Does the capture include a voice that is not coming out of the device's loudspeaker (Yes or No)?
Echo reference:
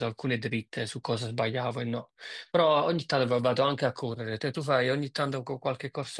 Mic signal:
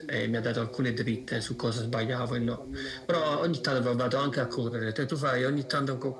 Yes